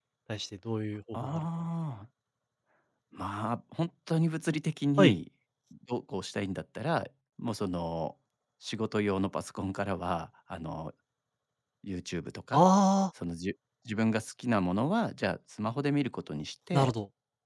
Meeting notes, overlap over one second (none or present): none